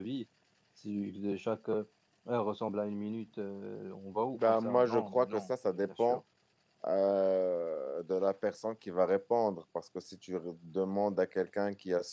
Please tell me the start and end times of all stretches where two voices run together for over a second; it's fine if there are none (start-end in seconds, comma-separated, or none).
4.3-6.2